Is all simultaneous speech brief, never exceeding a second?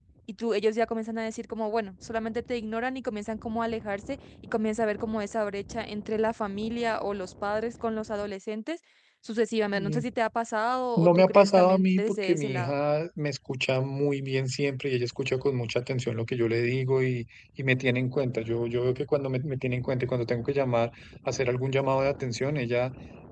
No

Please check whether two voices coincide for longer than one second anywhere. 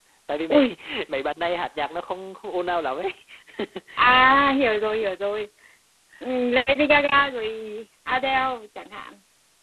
No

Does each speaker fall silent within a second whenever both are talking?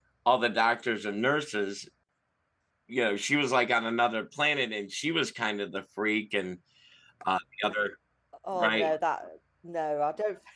Yes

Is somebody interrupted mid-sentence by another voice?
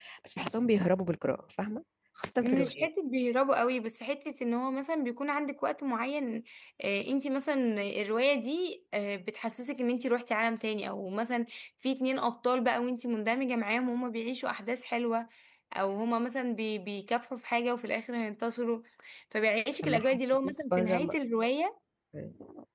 Yes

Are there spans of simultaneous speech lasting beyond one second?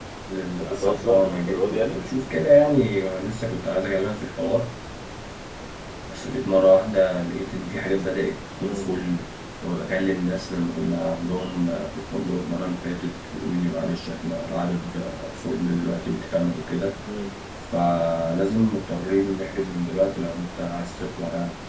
Yes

